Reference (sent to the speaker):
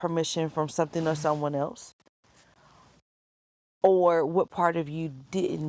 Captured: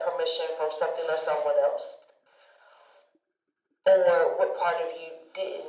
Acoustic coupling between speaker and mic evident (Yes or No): Yes